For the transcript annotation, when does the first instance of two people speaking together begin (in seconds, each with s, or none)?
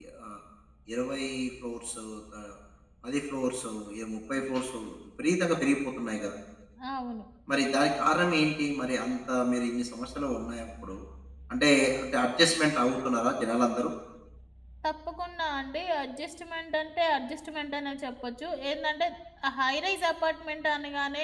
none